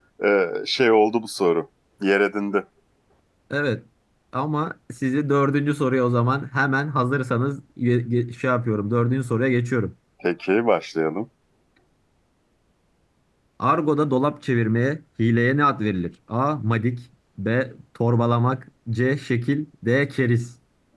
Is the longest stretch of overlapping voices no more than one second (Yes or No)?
Yes